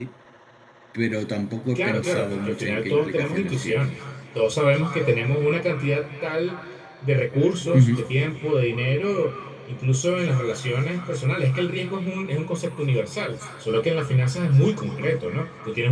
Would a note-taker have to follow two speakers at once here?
Yes, from 1.8 s

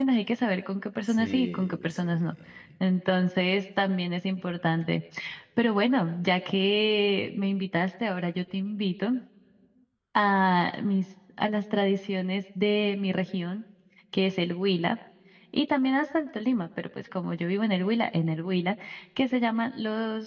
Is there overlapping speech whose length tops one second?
Yes, from 1.1 s

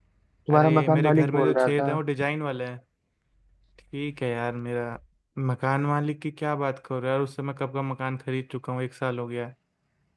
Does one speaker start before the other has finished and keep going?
Yes, from 0.5 s

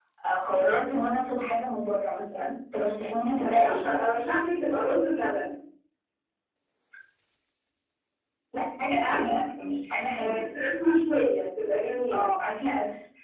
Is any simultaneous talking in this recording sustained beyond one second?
No

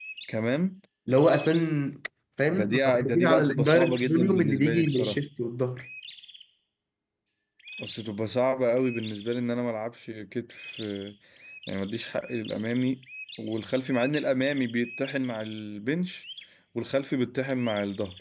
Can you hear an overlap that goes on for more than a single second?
Yes, from 2.6 s

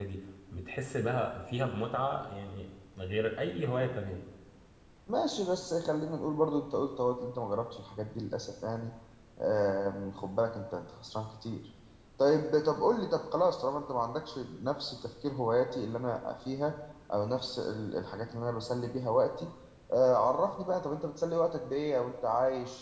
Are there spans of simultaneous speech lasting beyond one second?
No

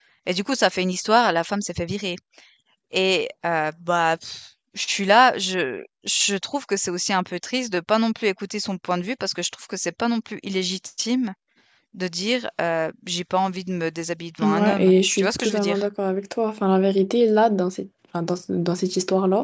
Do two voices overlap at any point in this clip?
Yes, from 14.4 s

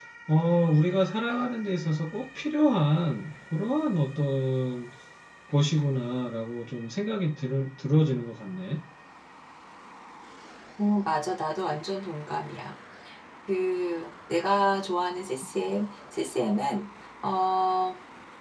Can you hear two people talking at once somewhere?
No

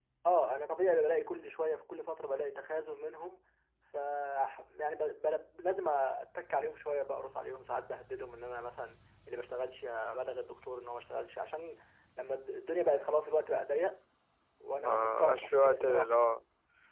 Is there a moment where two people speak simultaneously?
Yes, from 14.8 s

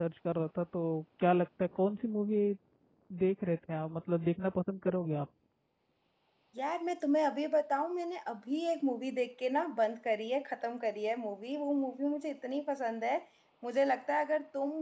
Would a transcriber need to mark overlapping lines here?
No

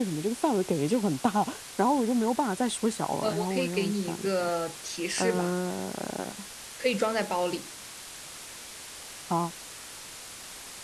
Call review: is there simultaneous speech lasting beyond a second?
Yes, from 3.2 s

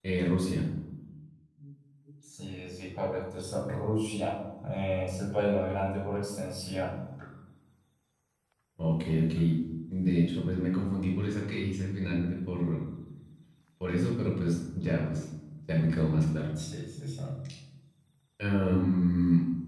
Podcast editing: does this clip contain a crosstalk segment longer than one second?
No

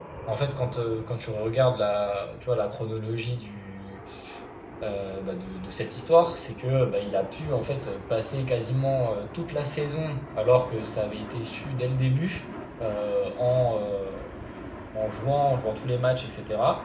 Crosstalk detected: No

